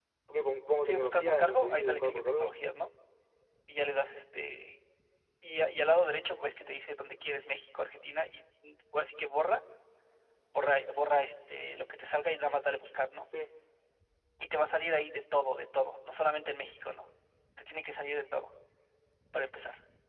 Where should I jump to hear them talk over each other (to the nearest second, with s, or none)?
1 s